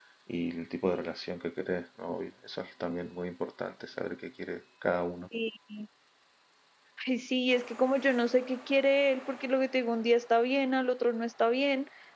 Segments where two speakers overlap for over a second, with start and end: none

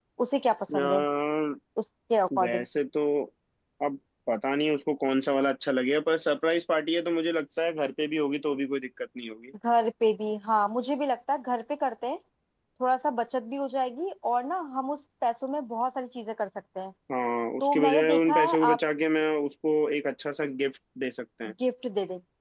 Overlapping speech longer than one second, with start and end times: 17.6-18.8

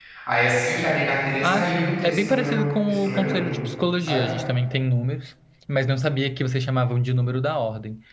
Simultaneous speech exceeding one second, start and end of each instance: 1.4-3.4

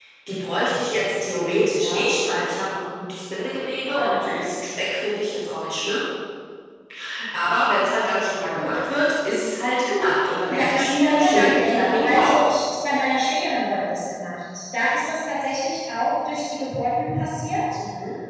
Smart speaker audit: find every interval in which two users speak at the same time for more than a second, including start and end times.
10.4-12.5

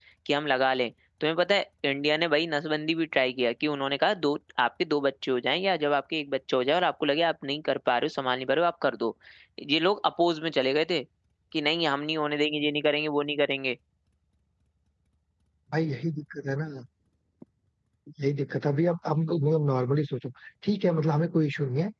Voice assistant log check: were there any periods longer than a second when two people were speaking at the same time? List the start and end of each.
none

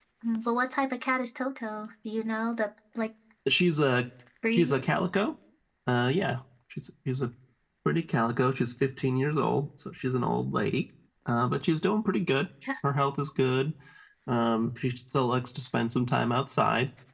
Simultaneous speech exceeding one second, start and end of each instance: none

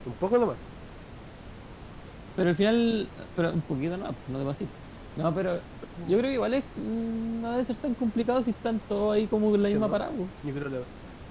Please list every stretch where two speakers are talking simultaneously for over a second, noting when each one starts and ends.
none

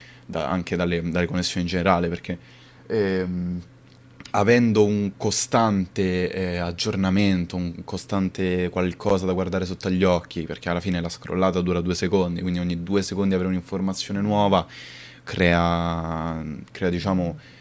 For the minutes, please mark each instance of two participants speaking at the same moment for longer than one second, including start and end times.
none

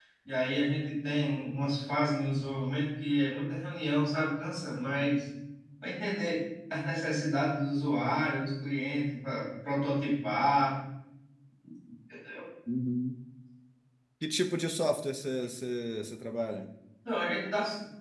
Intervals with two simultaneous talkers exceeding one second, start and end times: none

